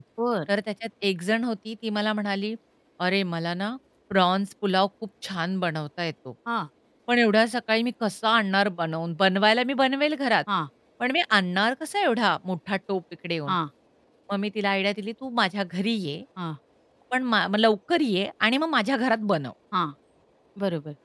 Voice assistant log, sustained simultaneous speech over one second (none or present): none